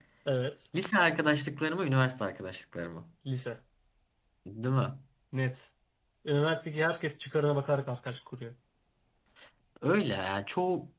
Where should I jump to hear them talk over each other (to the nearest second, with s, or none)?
none